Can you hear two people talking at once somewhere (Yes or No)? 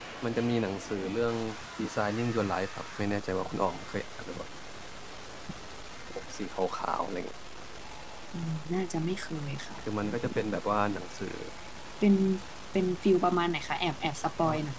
No